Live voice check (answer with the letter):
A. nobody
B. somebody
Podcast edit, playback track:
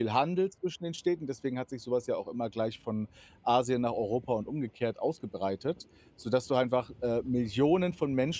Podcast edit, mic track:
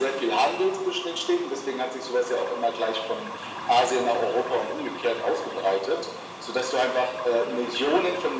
A